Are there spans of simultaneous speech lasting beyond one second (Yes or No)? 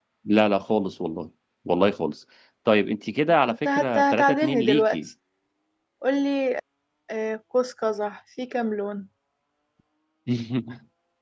Yes